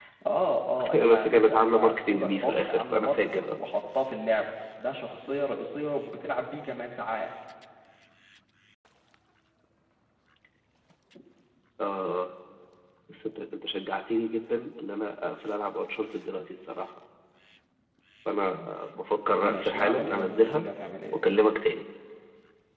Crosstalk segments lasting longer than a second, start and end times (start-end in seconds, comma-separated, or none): 0.9-3.6, 19.4-20.7